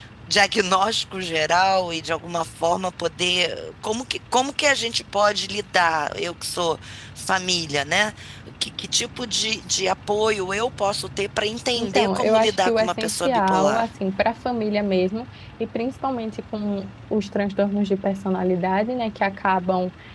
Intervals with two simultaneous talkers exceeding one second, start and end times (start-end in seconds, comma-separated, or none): 11.8-13.9